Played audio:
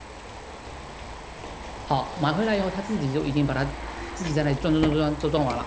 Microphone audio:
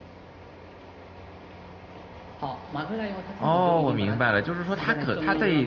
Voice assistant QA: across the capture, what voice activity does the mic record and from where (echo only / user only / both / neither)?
both